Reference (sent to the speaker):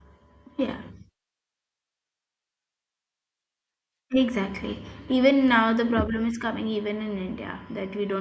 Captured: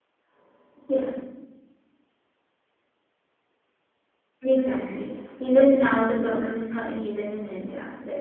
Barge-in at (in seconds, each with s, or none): none